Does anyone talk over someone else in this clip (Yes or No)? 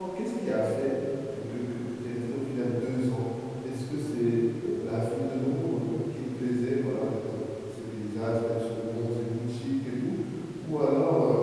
No